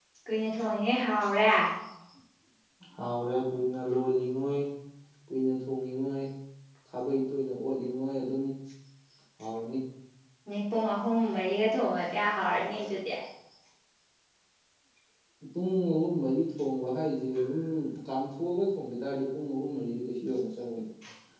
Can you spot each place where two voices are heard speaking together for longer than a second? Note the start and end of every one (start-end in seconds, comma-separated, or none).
none